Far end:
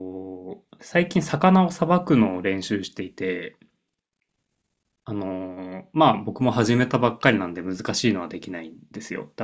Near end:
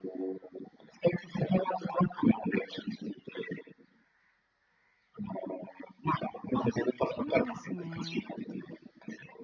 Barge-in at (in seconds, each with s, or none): 6.5 s